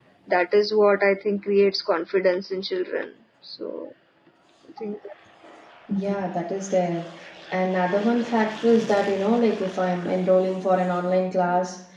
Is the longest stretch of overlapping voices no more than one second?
Yes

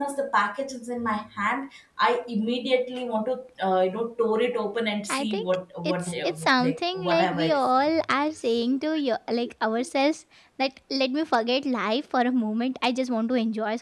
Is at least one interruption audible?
Yes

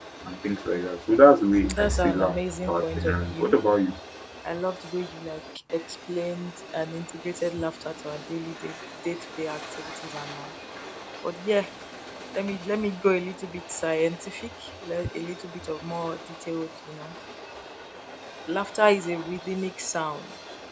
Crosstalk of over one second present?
Yes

